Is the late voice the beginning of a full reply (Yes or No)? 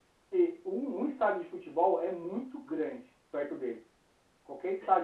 No